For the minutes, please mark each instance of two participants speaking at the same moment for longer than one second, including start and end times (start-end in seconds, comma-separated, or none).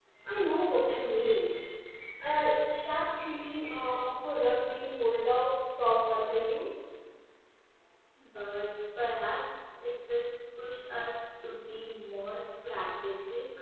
none